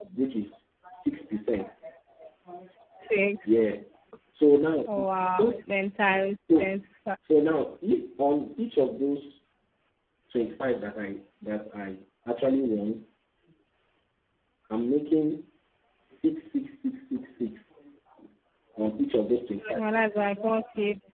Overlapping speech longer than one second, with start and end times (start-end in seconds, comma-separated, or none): none